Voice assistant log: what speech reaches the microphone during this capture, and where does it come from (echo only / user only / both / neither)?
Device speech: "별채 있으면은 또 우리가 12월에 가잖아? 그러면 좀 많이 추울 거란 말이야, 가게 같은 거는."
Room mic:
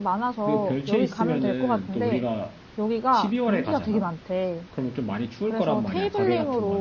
both